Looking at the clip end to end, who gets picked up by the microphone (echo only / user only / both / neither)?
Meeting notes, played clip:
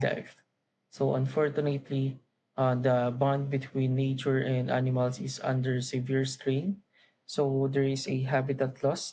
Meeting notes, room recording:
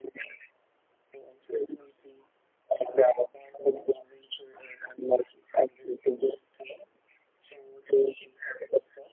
echo only